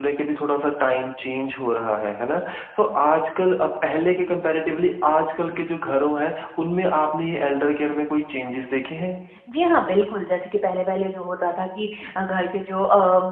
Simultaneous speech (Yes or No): No